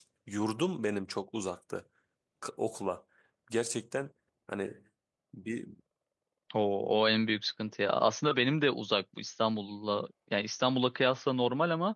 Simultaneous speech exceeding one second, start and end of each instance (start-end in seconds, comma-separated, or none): none